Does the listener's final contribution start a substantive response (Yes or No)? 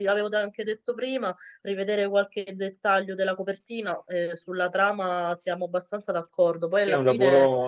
Yes